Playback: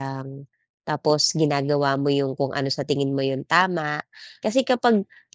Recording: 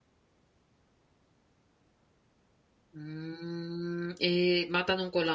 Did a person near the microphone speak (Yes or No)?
Yes